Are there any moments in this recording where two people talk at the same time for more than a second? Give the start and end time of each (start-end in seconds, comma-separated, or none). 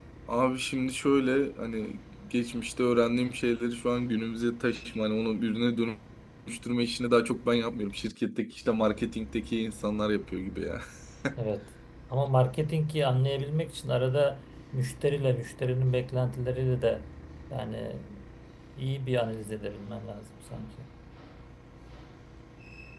none